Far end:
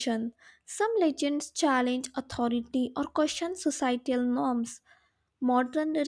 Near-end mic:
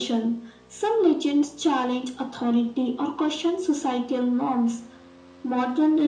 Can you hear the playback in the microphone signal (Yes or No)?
Yes